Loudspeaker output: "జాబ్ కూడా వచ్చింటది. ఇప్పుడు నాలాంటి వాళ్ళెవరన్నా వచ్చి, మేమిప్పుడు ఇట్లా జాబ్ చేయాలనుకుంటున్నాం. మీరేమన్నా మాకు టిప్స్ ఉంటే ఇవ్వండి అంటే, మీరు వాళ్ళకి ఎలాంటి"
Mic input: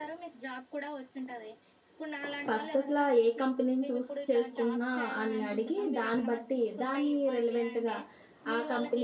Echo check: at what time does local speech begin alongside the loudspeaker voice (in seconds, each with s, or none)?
2.5 s